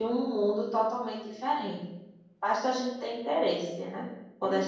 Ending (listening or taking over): listening